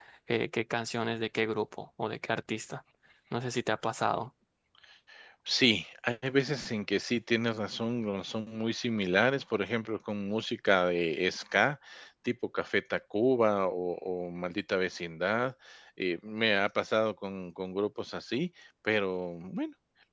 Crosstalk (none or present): none